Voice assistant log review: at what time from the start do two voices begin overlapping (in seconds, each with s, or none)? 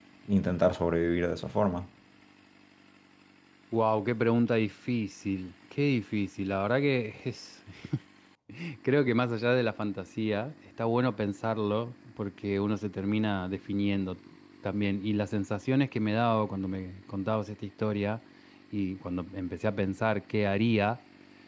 none